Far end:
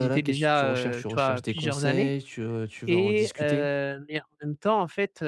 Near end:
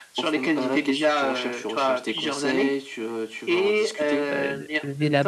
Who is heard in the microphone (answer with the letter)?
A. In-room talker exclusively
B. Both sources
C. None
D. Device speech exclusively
B